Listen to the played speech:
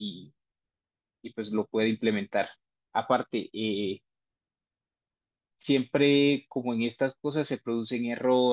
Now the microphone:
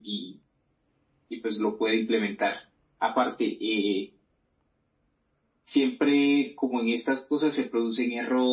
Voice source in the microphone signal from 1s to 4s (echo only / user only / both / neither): echo only